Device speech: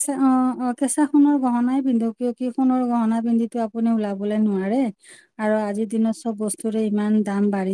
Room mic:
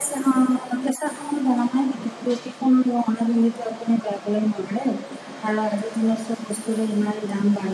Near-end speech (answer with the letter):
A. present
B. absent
B